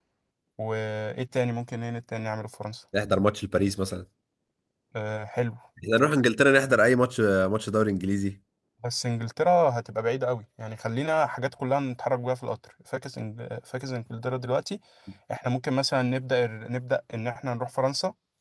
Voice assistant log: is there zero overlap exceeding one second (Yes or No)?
Yes